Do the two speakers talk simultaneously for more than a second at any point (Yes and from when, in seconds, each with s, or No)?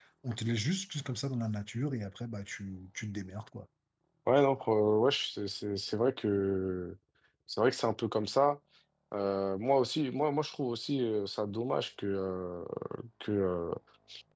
No